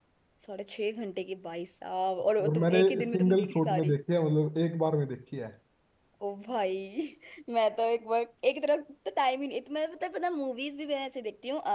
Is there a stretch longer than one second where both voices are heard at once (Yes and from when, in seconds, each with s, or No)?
Yes, from 2.4 s